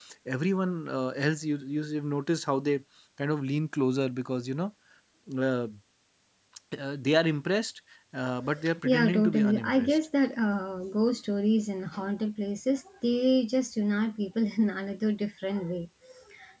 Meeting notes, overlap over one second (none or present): present